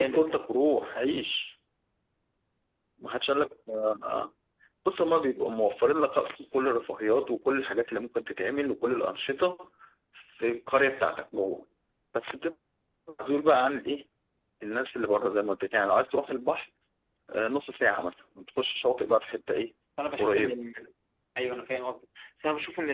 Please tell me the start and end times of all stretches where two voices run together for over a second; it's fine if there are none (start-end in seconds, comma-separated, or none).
none